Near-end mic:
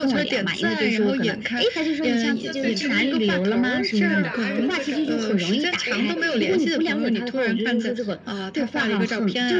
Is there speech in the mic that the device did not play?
Yes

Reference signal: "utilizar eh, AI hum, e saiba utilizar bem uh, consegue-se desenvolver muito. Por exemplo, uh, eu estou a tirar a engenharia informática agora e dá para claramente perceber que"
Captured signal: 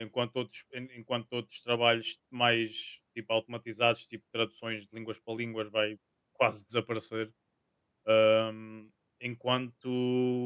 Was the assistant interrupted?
Yes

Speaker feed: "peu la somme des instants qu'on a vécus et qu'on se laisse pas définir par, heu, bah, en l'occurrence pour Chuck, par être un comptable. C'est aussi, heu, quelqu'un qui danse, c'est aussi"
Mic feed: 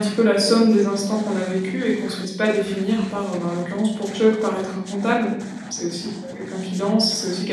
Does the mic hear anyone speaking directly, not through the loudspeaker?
No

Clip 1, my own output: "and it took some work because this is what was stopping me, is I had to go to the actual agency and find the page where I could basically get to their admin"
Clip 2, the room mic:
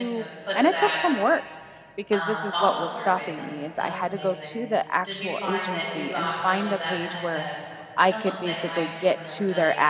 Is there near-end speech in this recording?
Yes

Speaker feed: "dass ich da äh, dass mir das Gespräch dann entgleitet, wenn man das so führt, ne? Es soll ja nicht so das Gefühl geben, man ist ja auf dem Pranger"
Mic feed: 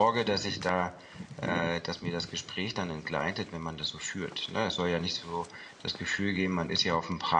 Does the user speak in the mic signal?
No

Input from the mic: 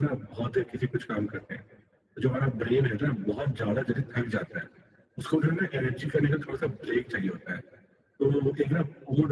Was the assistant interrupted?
No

